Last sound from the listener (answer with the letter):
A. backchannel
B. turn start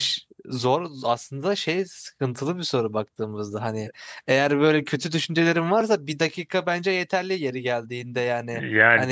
B